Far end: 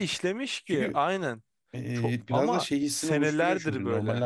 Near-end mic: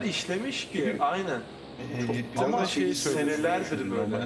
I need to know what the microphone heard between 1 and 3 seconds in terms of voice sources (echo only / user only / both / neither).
both